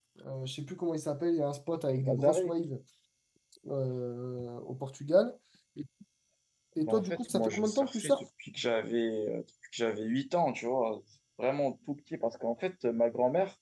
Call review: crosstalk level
present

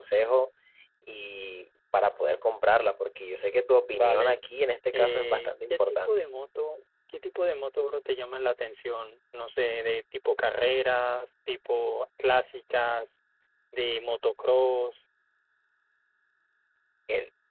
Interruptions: present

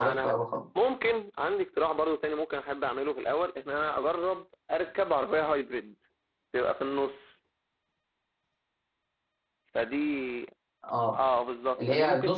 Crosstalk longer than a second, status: none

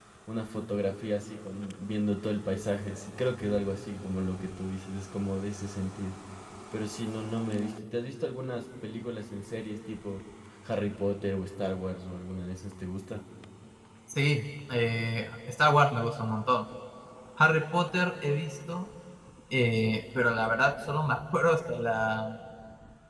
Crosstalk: none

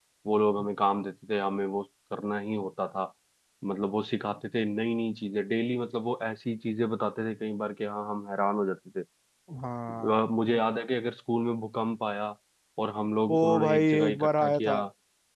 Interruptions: present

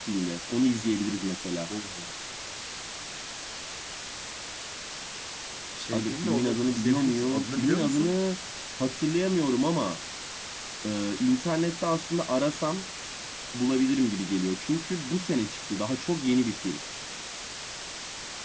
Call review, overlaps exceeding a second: present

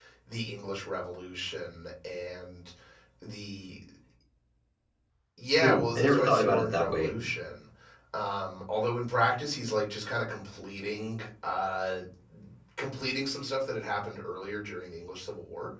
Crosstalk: present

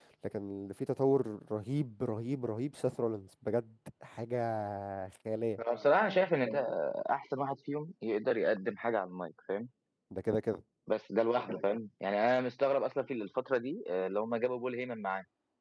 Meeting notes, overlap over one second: none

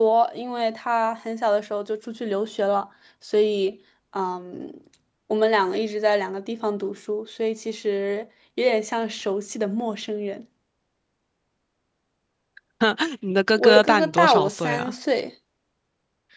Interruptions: present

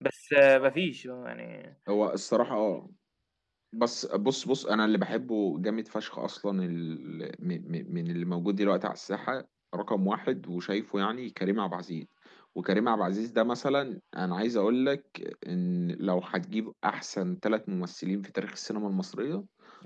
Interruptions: none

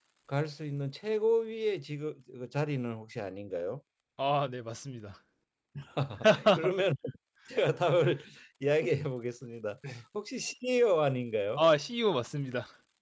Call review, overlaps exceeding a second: none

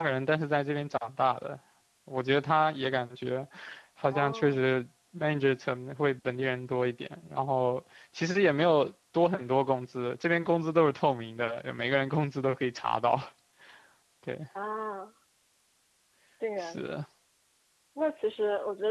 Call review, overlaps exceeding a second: none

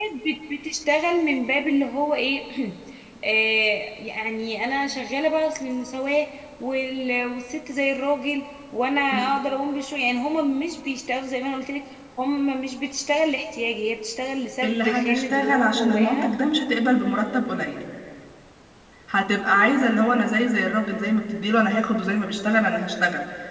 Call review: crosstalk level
present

